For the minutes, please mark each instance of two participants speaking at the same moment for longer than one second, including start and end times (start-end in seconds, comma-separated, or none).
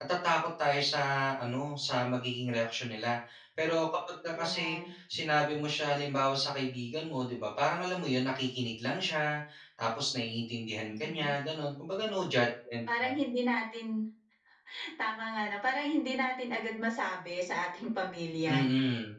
none